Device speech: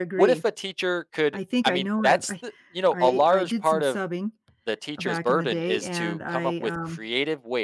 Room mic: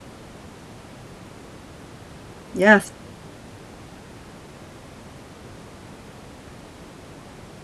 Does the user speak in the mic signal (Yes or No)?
Yes